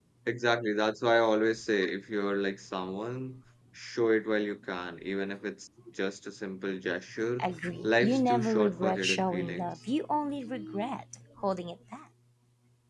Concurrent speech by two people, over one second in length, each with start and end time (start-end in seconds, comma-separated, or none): 7.8-9.7